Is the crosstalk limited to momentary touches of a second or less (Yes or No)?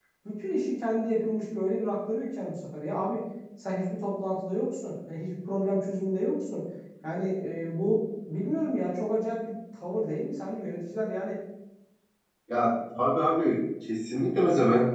Yes